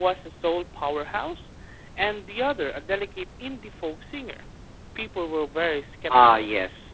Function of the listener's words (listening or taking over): taking over